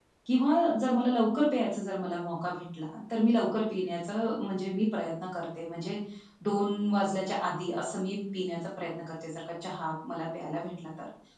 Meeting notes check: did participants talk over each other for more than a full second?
No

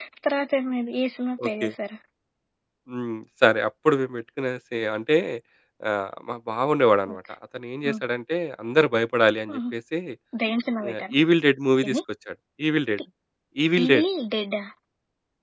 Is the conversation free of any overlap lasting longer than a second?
Yes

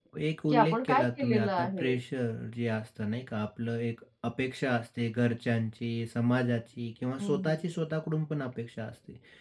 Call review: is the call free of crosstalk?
No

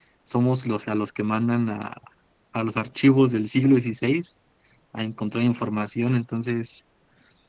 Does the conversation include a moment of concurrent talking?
No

